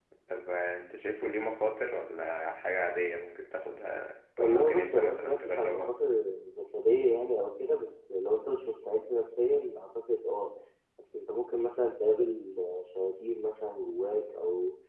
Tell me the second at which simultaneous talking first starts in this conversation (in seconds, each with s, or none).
4.4 s